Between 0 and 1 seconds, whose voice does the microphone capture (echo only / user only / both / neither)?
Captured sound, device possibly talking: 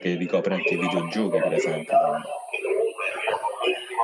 both